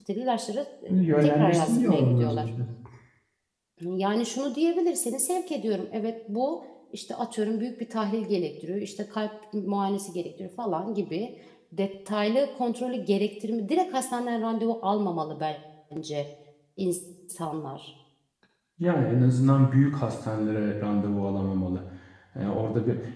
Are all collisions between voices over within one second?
No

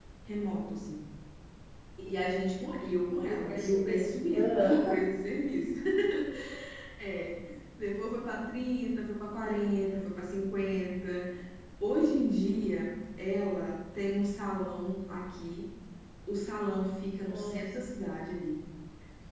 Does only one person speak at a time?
No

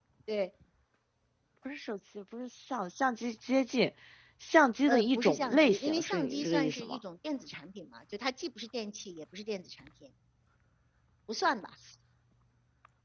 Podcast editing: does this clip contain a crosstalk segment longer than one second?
Yes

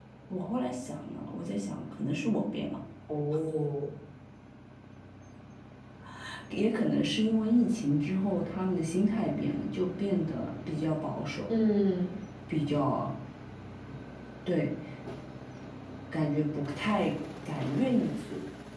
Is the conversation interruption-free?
Yes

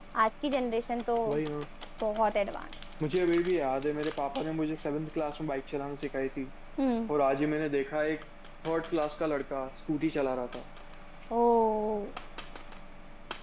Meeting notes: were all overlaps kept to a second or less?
Yes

